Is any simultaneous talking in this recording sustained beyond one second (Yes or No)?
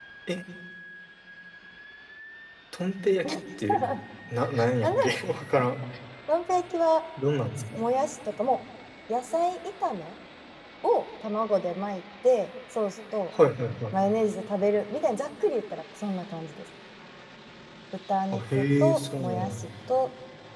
Yes